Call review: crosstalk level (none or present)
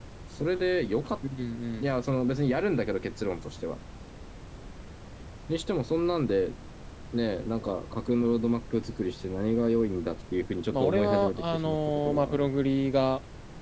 present